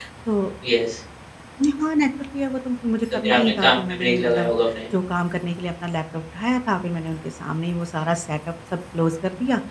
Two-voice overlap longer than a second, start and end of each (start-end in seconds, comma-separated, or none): 3.2-4.5